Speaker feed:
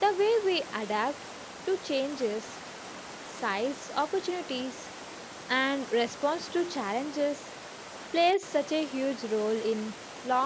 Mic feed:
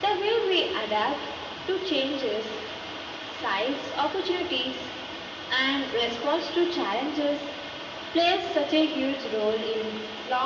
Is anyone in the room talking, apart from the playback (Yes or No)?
No